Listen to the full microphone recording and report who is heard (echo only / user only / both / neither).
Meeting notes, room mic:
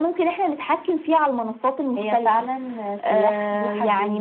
both